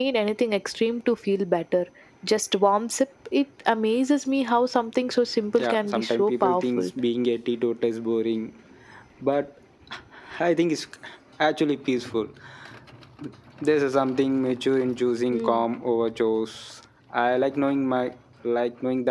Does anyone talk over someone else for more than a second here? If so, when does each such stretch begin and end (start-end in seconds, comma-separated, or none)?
5.6-6.9